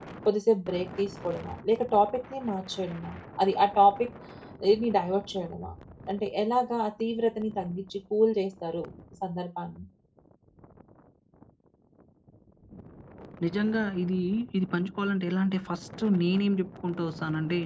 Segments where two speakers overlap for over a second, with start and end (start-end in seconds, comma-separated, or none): none